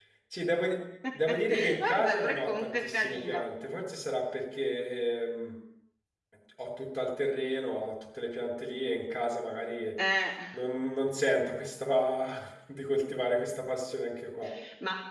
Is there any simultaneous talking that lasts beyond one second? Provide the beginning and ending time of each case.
1.1-3.5

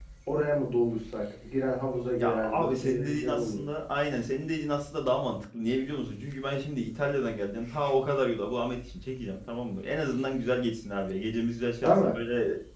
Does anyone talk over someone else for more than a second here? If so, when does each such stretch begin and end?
2.2-3.6

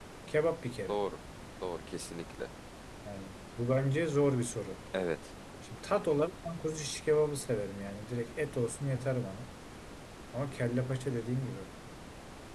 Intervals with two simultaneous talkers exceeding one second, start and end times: none

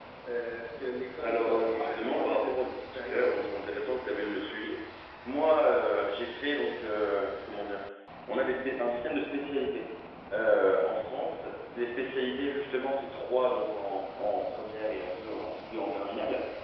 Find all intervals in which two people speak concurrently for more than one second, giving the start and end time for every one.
1.2-3.4

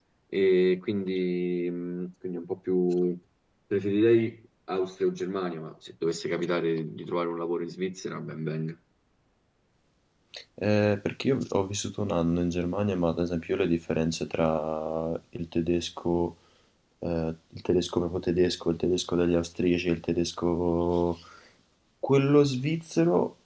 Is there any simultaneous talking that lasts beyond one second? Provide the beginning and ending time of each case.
none

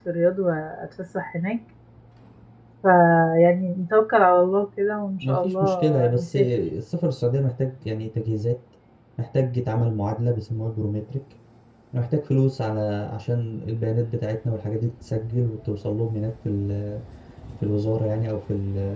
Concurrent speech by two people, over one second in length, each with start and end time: 5.2-6.5

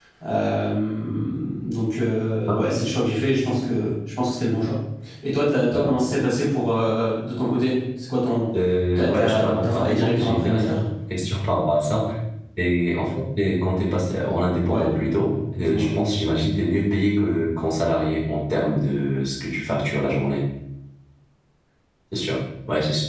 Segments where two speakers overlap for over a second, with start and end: 8.9-10.7

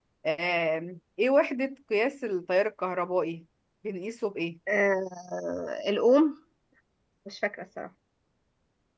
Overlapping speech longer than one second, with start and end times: none

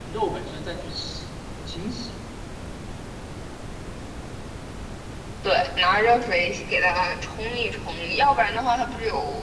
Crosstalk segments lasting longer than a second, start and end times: none

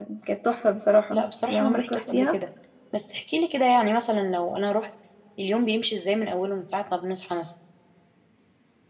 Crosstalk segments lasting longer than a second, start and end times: 1.1-2.4

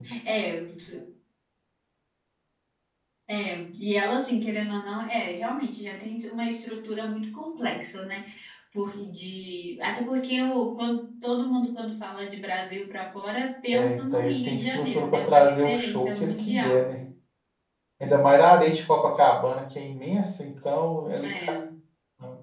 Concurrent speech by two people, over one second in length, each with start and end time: 13.7-17.1

